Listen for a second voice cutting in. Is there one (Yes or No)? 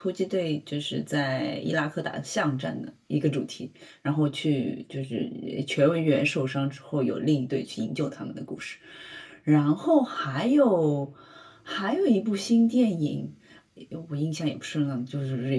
No